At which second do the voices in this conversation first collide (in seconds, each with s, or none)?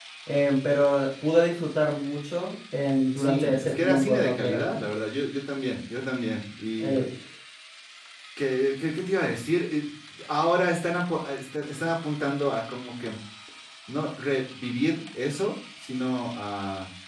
3.2 s